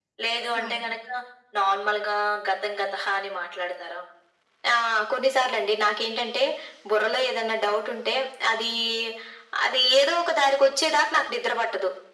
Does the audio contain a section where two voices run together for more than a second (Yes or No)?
No